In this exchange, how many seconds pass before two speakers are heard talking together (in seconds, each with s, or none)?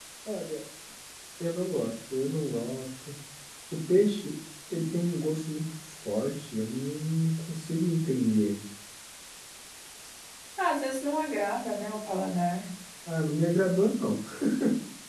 none